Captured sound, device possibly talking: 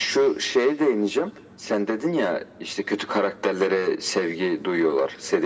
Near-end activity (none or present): none